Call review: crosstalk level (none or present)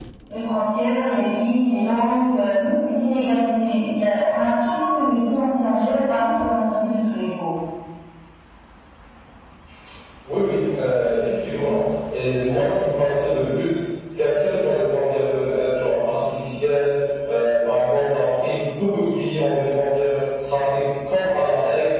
none